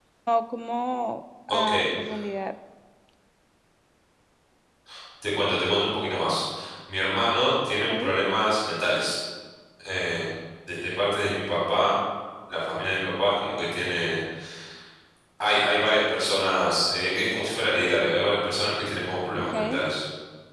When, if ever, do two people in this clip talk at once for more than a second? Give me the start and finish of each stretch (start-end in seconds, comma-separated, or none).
none